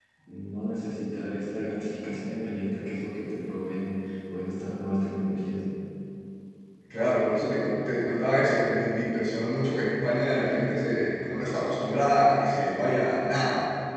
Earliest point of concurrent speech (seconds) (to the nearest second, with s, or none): none